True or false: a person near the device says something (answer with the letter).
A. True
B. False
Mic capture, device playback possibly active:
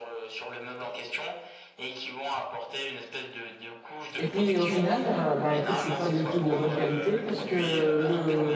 A